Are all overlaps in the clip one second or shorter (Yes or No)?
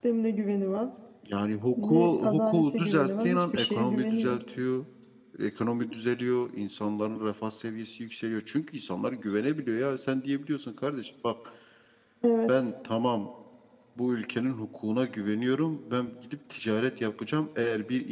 No